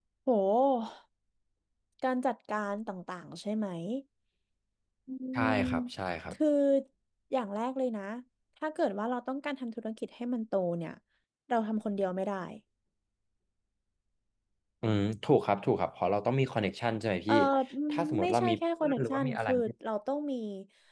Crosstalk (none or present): present